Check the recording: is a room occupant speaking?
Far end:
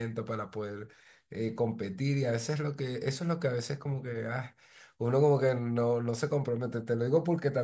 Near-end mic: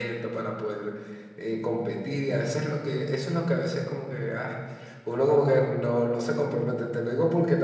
No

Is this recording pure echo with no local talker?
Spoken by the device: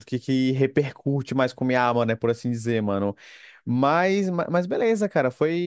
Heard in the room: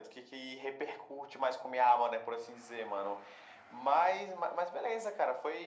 Yes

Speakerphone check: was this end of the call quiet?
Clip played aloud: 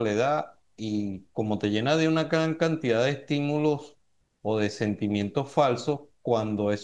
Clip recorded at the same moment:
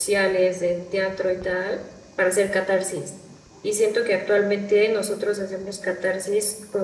No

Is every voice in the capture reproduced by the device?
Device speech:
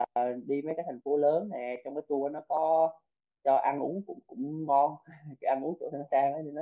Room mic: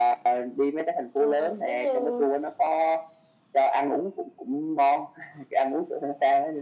No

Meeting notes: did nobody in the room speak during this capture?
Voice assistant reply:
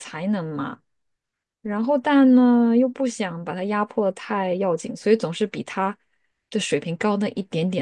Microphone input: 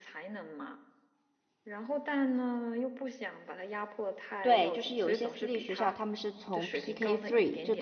No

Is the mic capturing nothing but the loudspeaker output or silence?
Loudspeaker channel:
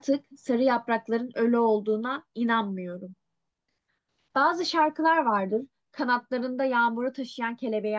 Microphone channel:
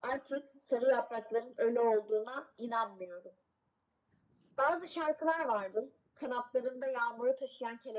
Yes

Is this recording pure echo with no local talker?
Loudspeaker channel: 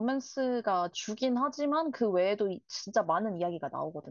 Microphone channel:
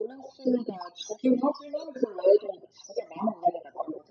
Yes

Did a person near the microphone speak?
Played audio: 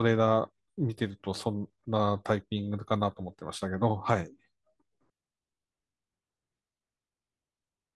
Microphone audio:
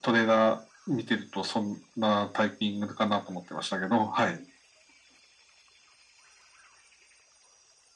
No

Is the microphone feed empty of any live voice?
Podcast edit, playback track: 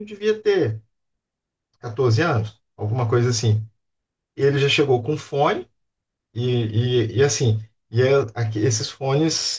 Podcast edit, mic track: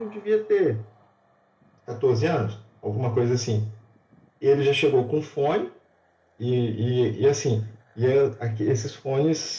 Yes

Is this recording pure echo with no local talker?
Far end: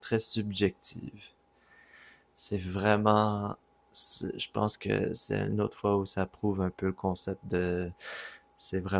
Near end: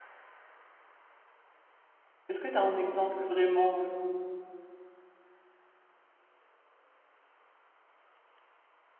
No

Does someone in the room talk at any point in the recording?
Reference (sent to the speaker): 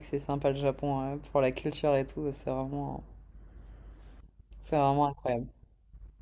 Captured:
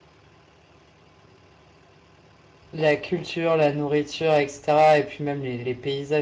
Yes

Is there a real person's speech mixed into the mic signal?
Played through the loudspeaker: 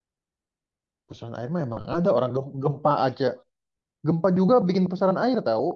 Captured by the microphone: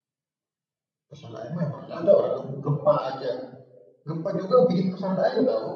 No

